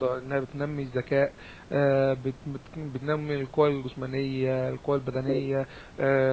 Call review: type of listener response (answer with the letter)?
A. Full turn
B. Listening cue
B